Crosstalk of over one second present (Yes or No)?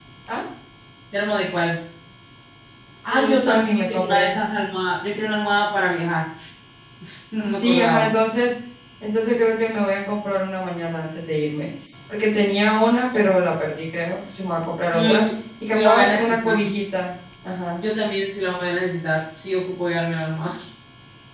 Yes